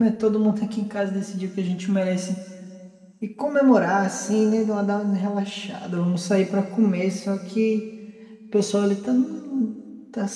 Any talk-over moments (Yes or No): No